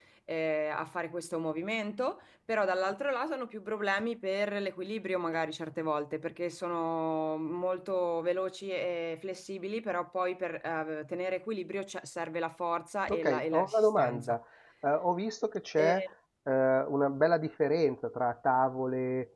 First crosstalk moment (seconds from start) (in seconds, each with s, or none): 13.1 s